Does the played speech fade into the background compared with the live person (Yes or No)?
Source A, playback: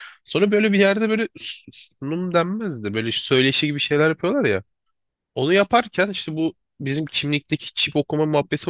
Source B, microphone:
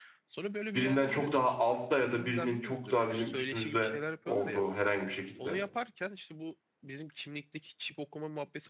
Yes